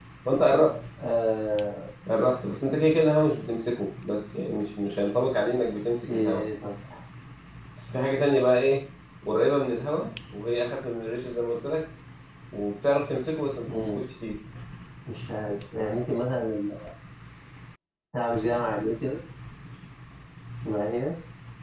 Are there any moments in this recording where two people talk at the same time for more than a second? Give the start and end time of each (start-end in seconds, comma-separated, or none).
none